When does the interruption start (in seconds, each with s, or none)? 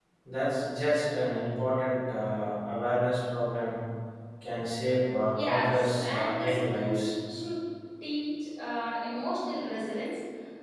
5.3 s